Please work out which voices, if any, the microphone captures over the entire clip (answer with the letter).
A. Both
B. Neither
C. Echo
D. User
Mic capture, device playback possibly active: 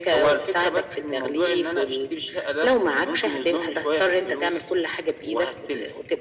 C